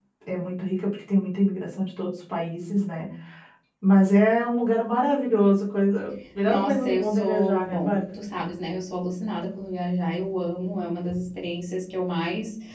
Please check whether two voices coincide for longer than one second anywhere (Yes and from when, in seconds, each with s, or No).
Yes, from 6.5 s